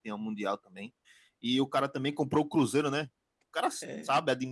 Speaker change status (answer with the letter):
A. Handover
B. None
B